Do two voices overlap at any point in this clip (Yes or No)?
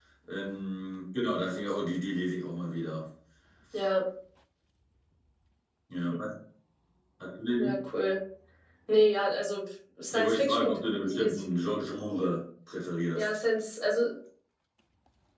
Yes